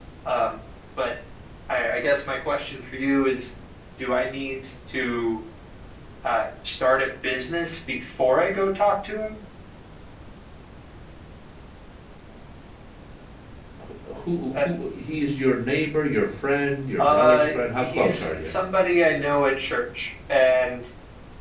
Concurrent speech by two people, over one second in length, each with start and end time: 17.0-18.5

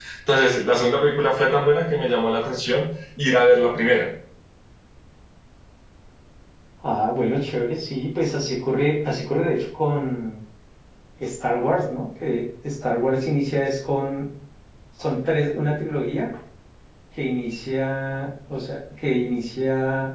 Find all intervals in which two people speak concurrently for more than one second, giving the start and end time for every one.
none

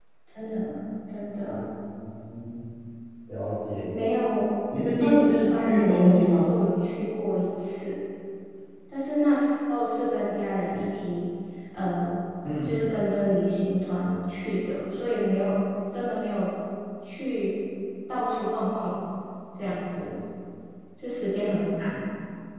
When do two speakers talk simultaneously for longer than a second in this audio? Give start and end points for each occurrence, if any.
5.0-6.5

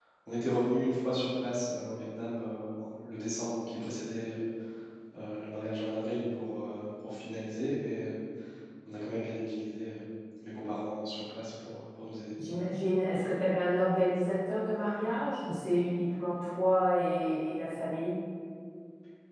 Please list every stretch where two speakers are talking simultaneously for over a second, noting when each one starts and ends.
none

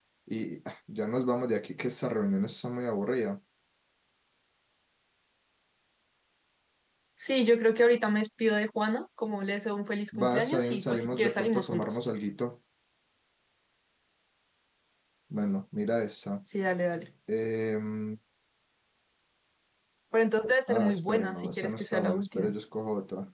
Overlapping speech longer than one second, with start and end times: 10.2-11.9, 20.7-22.5

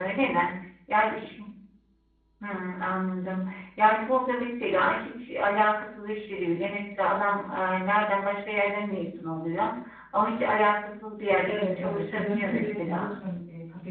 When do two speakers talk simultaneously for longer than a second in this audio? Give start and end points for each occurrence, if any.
11.4-13.1

